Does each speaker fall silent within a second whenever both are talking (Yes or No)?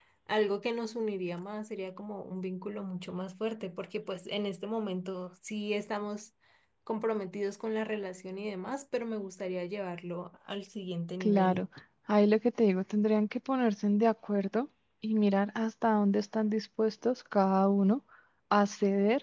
Yes